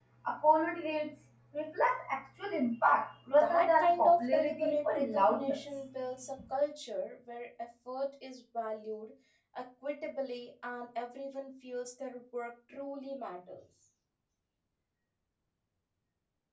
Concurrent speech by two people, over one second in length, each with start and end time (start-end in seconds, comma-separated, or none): 3.4-5.6